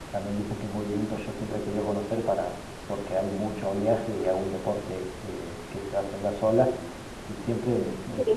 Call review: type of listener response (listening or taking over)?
listening